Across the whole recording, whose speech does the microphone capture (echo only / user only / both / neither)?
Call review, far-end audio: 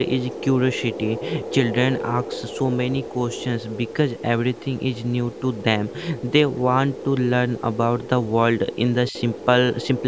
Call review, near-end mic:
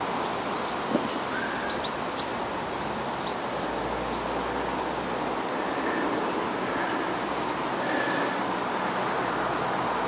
neither